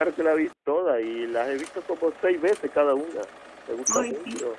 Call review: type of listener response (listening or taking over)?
taking over